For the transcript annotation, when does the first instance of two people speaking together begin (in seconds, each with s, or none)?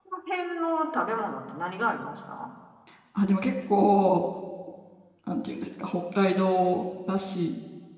none